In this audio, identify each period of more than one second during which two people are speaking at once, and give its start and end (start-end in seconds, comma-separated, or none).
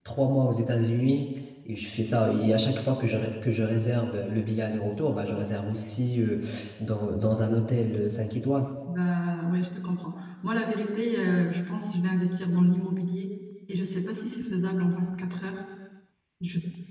none